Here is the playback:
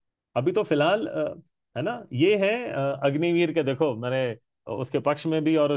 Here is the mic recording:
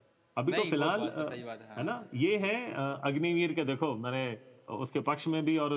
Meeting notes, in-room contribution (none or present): present